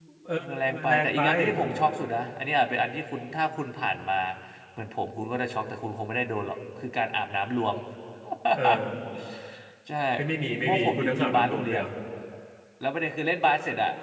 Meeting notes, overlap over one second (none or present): present